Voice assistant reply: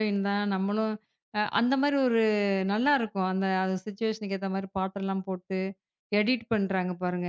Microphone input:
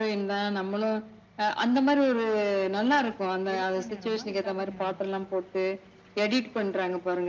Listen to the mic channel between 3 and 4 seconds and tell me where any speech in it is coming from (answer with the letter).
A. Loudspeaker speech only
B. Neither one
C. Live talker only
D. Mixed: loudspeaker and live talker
D